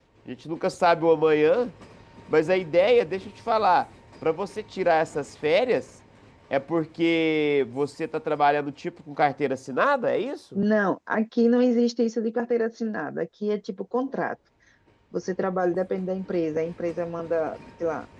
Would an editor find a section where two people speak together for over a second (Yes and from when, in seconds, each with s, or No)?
No